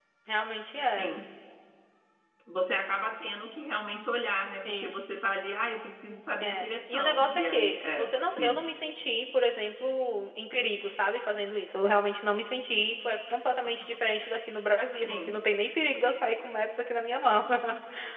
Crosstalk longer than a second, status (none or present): present